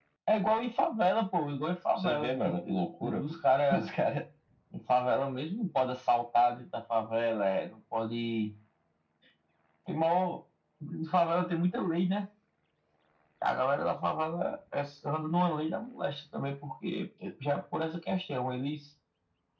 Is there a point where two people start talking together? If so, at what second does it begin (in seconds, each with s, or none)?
2.0 s